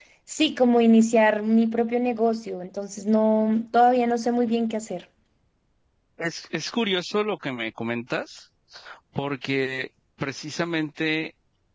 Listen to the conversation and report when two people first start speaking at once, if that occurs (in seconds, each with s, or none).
none